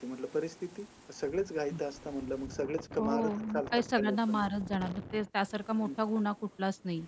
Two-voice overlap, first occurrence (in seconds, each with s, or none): 3.0 s